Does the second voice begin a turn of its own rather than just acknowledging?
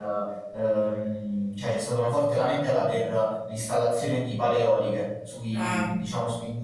No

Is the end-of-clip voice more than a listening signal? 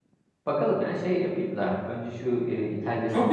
Yes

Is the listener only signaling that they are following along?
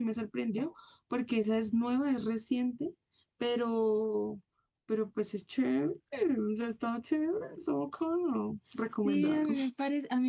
No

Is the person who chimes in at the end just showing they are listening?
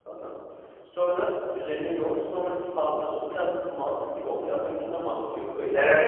No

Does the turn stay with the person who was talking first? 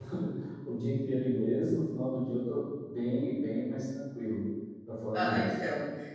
No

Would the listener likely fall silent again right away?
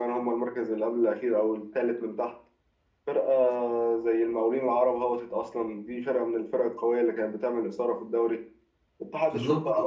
Yes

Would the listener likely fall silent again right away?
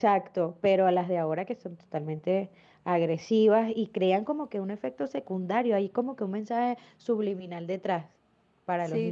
No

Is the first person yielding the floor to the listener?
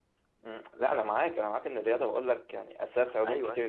No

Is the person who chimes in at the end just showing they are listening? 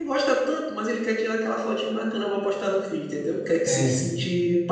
Yes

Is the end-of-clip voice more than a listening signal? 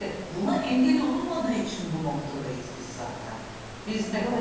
No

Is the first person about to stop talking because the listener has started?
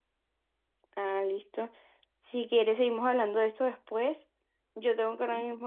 No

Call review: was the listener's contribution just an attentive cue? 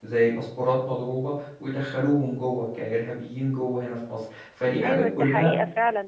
No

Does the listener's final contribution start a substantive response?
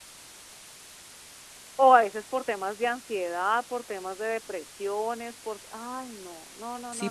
Yes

